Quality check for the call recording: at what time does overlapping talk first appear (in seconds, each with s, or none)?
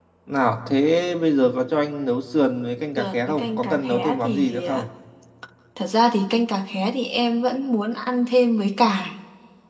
3.0 s